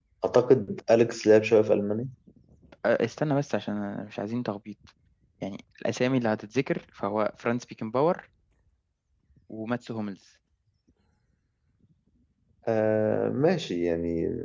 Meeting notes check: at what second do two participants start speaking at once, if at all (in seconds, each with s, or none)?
none